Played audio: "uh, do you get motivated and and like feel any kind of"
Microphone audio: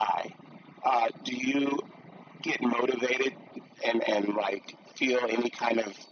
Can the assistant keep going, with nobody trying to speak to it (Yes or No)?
Yes